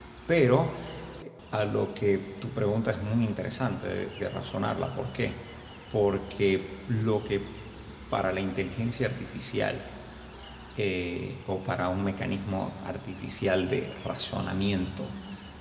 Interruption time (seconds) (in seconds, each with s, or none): none